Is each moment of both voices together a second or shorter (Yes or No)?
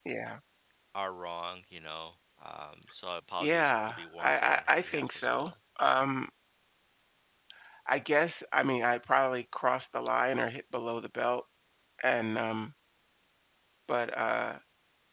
No